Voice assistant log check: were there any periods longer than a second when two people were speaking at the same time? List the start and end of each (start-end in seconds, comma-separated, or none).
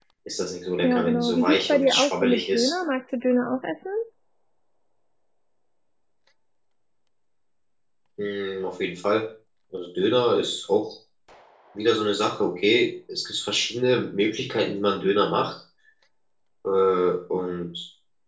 0.8-2.7